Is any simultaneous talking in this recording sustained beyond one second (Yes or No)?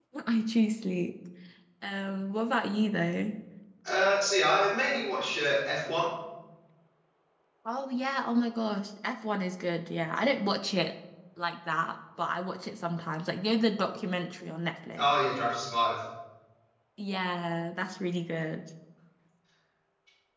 No